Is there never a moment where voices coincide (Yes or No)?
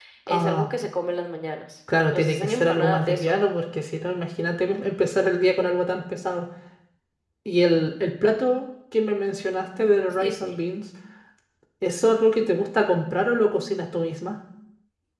No